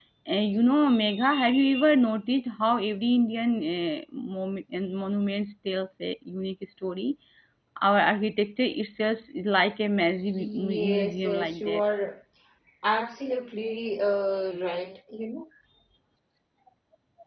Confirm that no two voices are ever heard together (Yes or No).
No